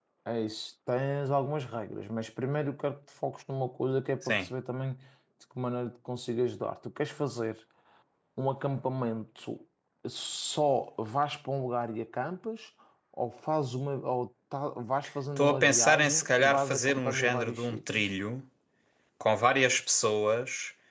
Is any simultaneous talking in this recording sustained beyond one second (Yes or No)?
Yes